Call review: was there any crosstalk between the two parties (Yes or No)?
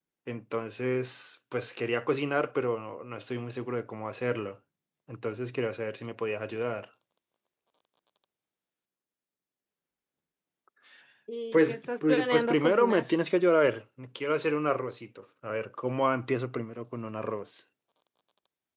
Yes